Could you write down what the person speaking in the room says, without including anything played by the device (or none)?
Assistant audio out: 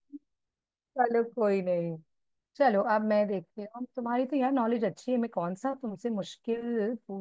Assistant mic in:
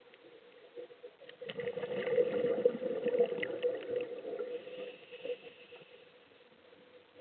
none